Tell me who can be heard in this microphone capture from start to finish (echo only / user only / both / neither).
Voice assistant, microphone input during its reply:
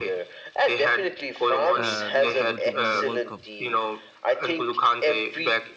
both